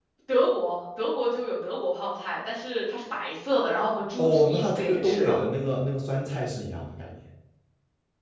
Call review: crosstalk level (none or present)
present